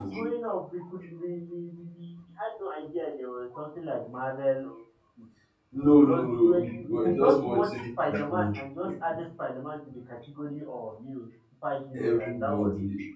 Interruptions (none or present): present